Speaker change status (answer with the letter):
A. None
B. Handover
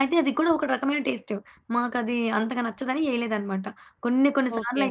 A